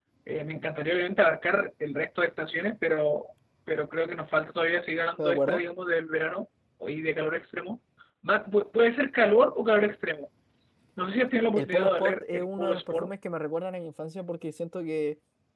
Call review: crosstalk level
present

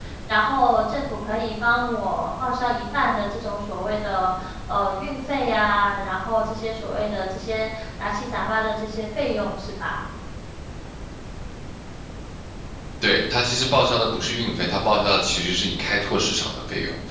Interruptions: none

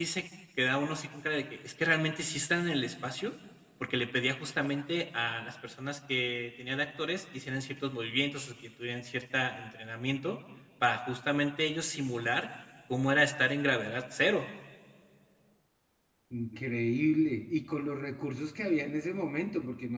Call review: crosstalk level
none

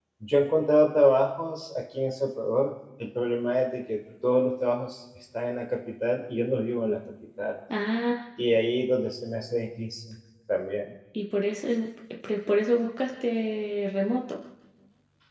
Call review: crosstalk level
none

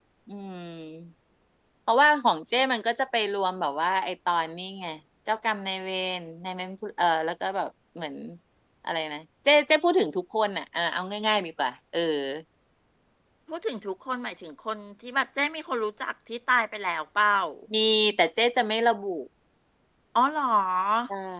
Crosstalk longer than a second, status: none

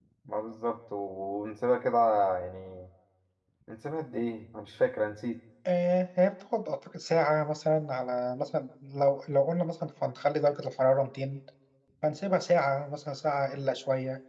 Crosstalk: none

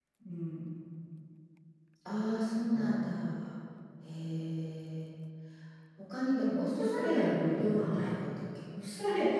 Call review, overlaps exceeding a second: present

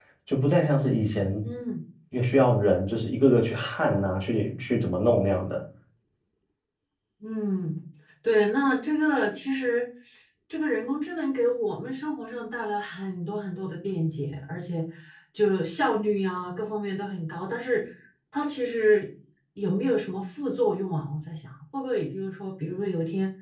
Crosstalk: none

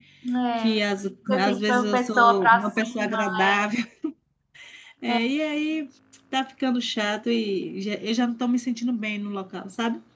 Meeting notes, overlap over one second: present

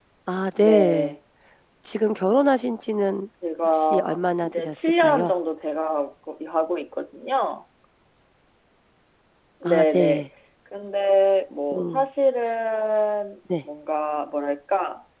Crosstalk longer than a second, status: present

